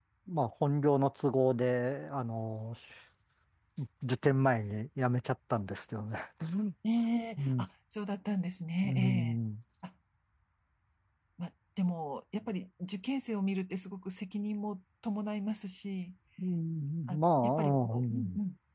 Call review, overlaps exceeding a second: present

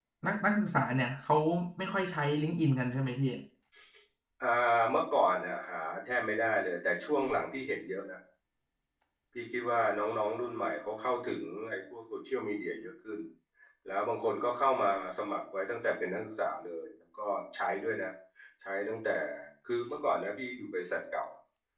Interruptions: none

